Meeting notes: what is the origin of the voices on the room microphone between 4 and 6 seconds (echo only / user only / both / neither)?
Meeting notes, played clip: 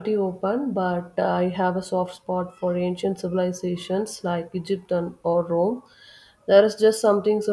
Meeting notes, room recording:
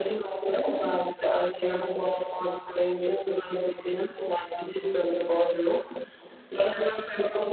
echo only